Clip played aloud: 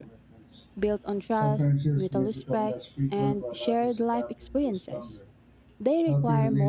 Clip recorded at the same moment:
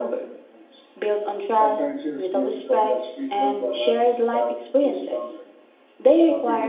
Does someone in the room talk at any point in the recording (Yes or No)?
No